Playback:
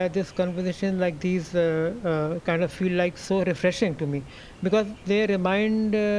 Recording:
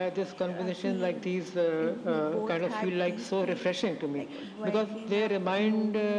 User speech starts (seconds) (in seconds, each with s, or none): 0.5 s